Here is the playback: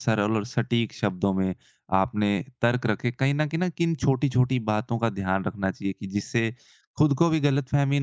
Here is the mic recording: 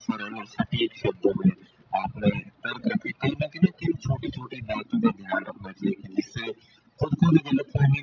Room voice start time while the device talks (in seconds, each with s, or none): none